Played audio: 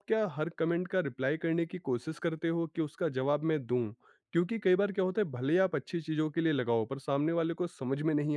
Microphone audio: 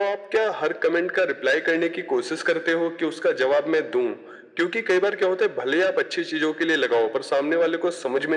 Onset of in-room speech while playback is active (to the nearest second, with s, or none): none